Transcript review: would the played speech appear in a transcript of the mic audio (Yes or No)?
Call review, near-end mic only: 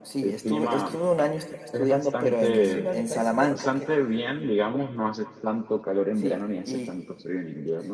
Yes